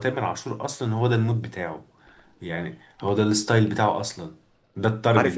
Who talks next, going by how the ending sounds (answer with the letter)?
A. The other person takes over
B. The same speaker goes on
A